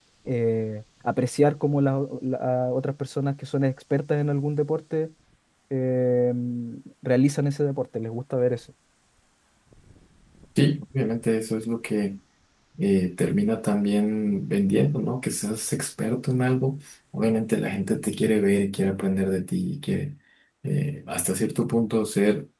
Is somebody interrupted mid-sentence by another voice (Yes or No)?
No